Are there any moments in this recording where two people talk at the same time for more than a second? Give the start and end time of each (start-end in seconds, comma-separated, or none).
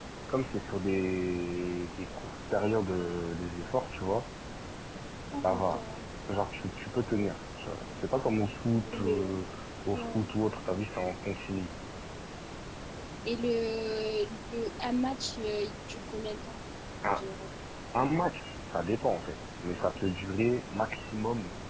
none